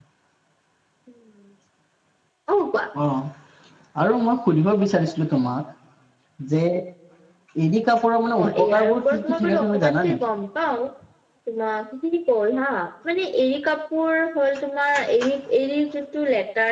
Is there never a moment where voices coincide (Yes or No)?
No